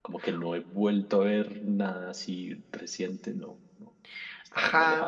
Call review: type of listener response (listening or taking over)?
taking over